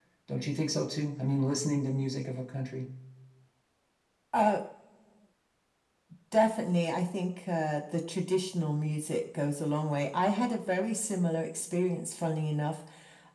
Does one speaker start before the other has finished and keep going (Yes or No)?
No